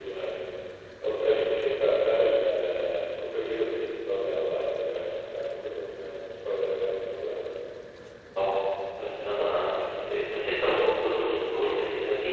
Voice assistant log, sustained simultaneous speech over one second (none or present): none